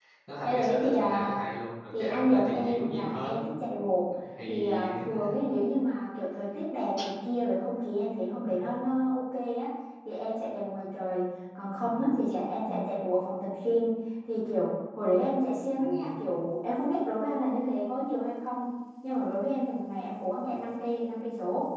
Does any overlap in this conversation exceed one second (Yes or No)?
Yes